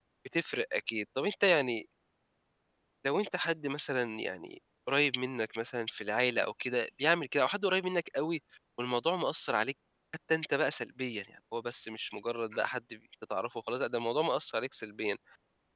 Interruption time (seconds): none

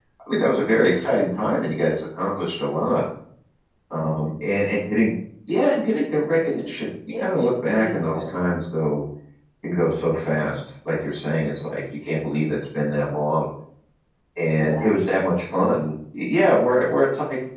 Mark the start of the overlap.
7.2 s

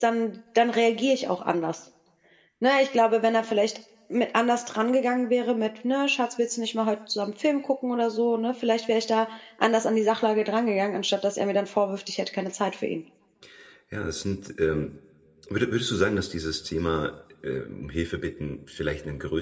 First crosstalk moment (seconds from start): none

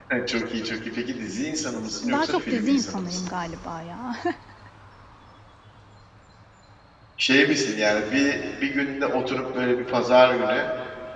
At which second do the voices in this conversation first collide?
2.0 s

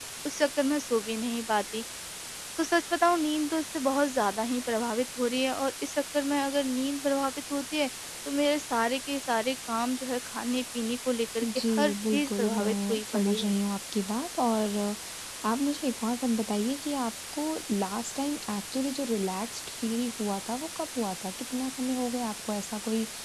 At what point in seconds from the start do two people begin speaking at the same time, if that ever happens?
11.4 s

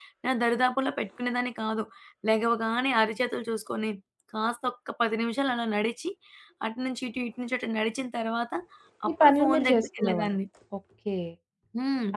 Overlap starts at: 9.1 s

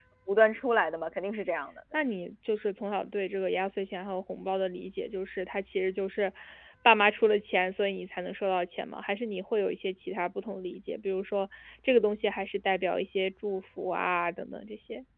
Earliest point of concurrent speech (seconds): none

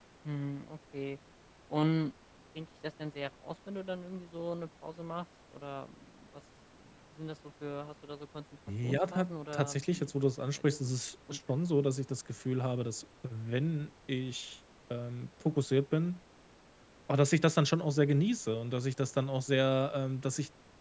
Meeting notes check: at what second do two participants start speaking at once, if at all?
8.7 s

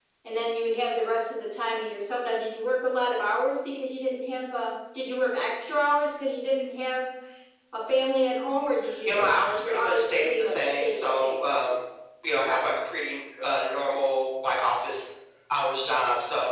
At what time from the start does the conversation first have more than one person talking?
9.1 s

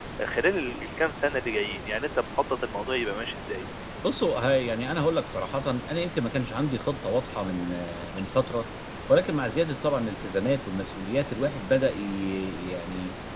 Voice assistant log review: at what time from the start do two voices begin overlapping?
none

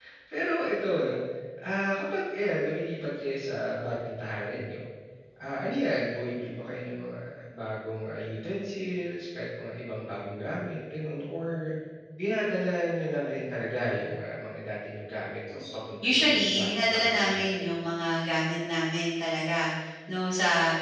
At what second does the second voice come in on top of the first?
16.0 s

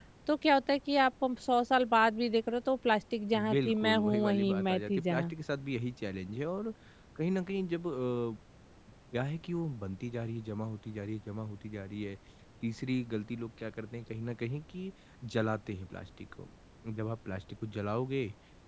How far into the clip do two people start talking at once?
3.3 s

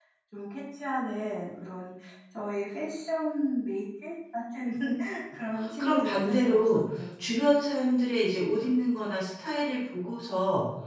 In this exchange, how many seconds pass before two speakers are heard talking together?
5.8 s

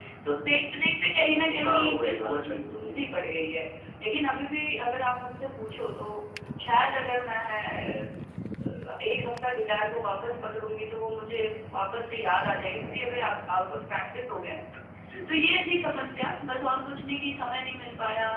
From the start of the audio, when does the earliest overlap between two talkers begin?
1.4 s

